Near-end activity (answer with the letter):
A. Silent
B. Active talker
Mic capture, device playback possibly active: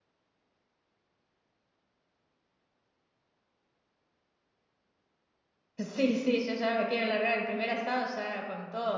B